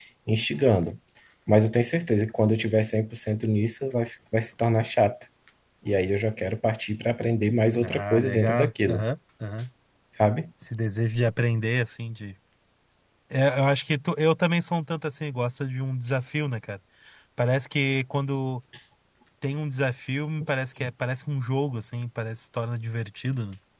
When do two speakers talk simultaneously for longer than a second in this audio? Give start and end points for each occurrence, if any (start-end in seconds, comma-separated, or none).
7.8-9.0